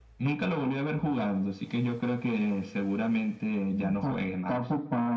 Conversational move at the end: taking over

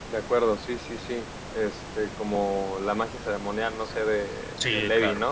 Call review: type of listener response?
taking over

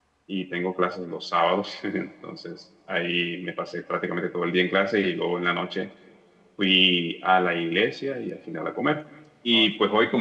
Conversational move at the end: listening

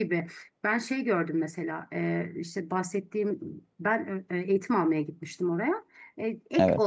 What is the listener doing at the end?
listening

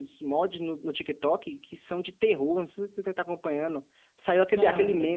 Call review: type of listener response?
listening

